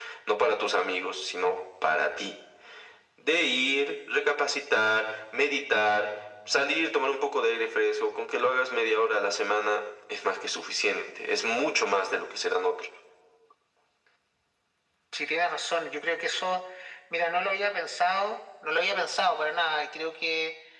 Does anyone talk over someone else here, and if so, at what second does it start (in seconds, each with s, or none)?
none